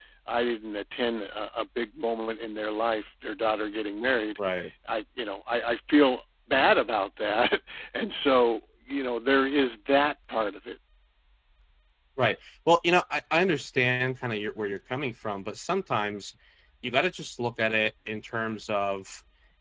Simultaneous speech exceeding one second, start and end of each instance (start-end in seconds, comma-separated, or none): none